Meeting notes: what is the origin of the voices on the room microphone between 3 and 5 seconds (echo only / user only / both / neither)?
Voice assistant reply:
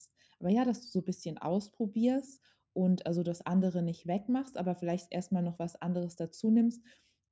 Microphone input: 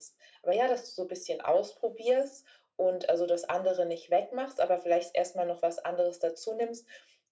echo only